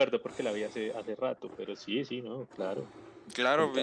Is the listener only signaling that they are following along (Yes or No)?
No